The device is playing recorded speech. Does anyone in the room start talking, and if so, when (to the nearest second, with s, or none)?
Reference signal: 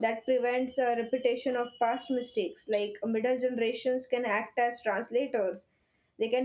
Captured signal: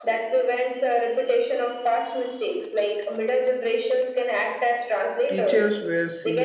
5 s